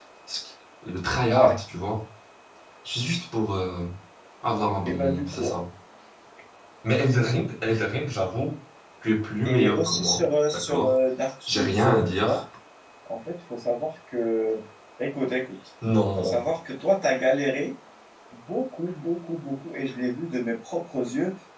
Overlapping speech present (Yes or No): Yes